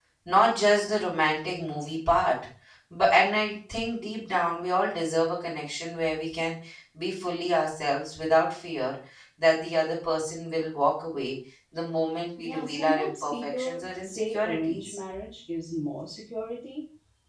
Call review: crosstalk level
present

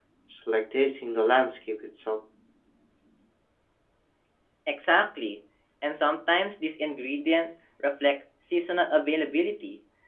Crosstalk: none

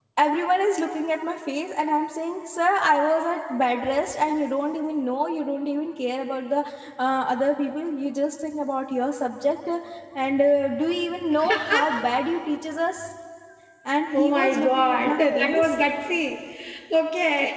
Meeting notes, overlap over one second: present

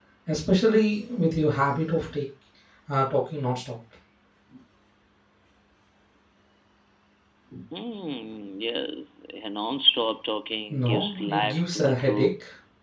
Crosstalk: present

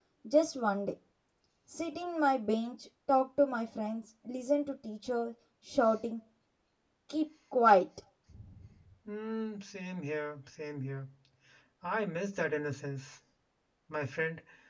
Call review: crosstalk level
none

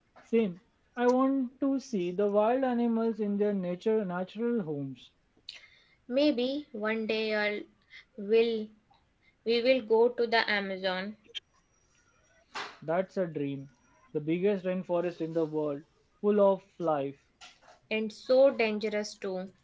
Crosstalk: none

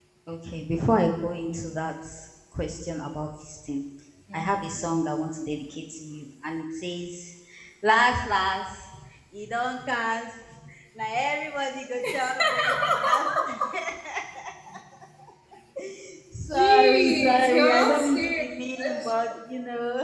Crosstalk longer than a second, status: present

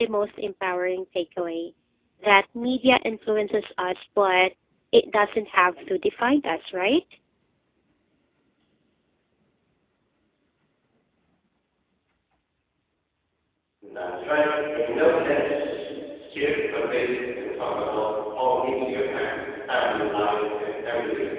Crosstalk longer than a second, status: none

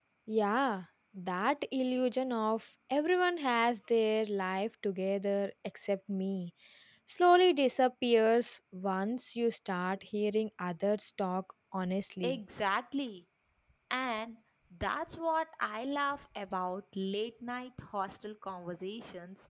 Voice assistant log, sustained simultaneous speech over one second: none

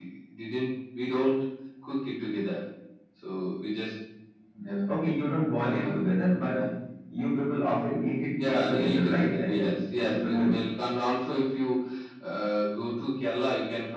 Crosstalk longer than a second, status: present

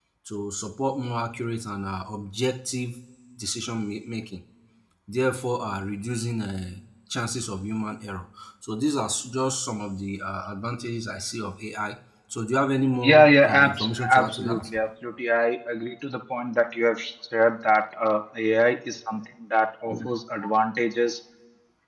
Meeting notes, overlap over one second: present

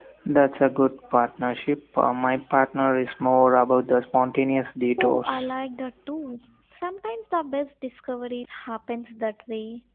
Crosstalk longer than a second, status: none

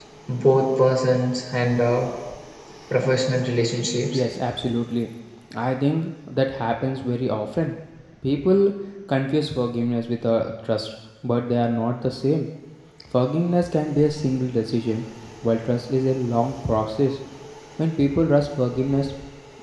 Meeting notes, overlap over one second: none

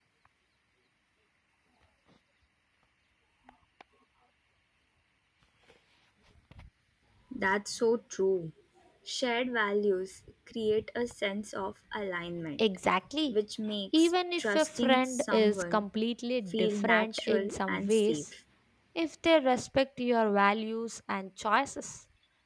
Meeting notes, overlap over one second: present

